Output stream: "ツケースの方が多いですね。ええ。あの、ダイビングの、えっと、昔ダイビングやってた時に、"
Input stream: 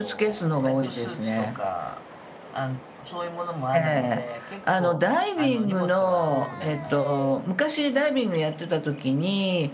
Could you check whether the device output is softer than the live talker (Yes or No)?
No